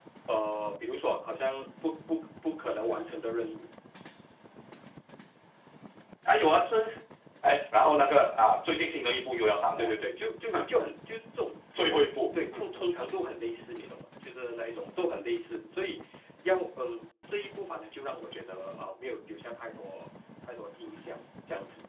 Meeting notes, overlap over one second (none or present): none